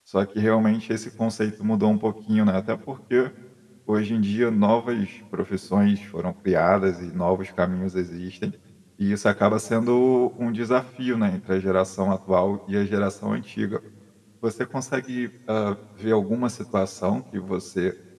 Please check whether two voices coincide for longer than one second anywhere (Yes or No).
No